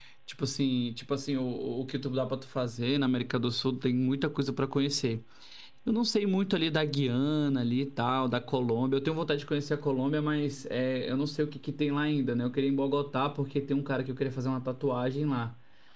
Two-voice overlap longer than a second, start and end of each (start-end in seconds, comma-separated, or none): none